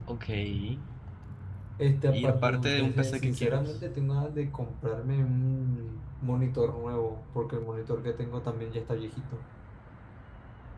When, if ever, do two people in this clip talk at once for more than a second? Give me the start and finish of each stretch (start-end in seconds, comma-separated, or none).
2.3-3.6